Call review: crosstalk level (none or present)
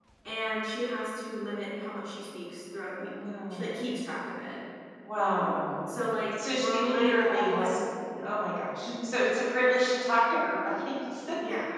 present